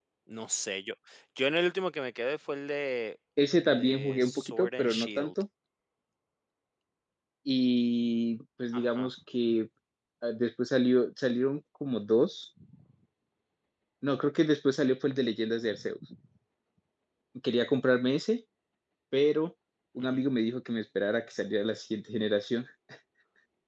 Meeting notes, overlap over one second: present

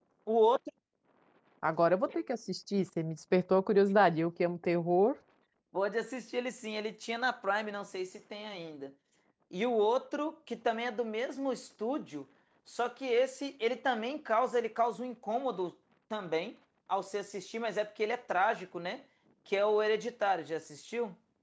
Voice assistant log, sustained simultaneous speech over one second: none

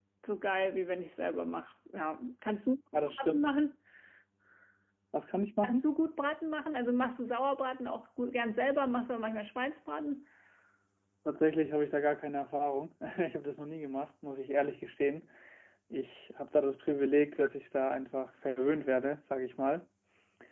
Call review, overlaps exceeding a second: none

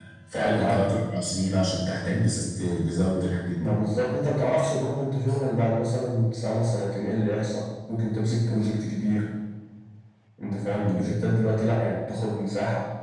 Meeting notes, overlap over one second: none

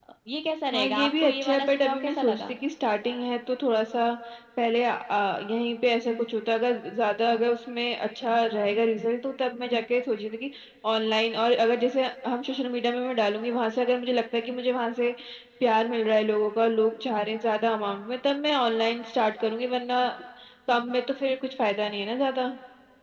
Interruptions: present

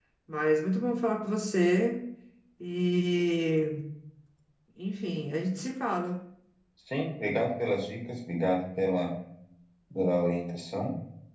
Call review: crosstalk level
none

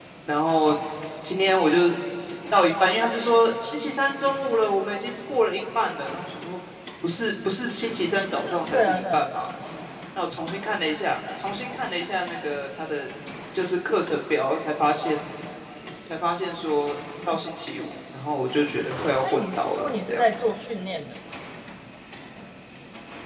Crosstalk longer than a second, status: present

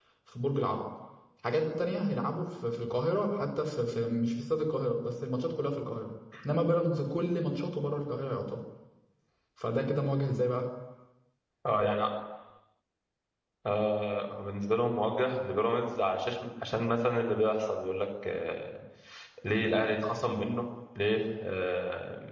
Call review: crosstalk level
none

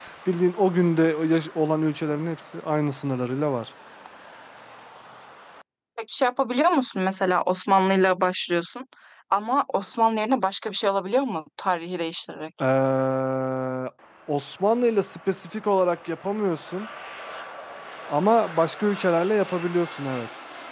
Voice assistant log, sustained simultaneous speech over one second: none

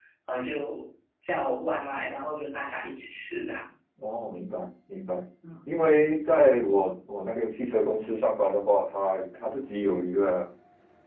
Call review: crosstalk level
none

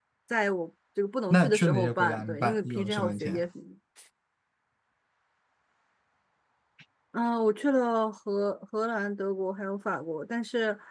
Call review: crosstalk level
present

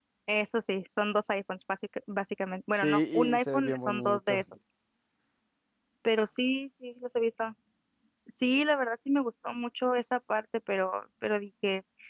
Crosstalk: present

